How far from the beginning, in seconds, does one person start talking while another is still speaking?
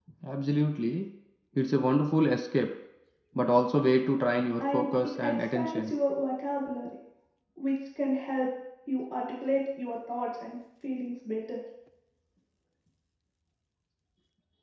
5 s

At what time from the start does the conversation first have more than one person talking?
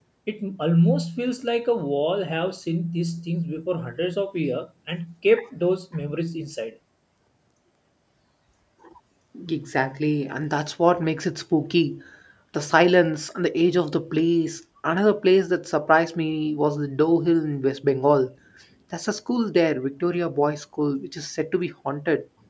none

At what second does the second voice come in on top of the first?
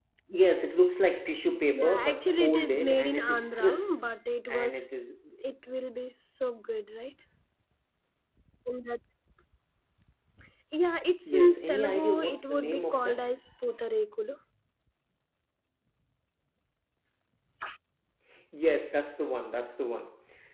1 s

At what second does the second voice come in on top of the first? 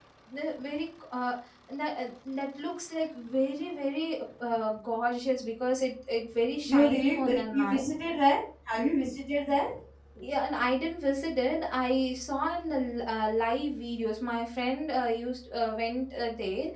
7 s

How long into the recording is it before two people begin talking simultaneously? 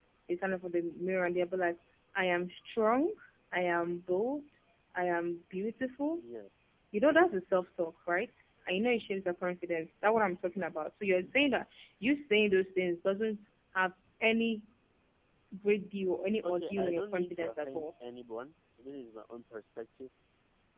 16 s

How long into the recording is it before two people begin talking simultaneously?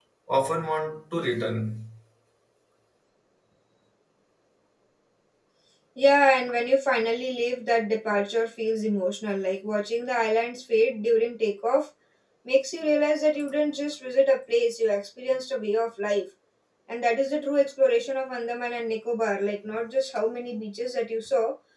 none

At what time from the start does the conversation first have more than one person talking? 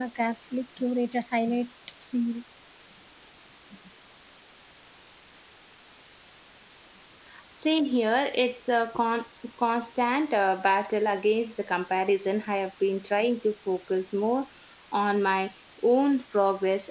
none

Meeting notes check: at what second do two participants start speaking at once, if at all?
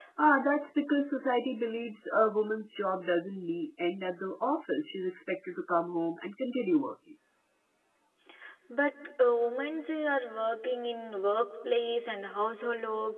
none

